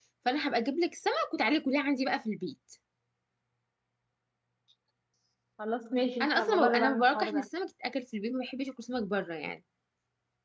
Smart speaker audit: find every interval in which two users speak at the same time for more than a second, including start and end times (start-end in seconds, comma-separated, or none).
6.2-7.5